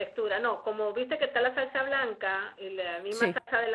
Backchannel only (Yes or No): Yes